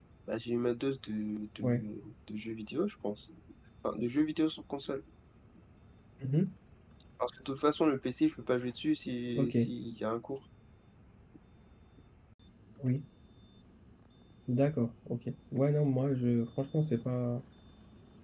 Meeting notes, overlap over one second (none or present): none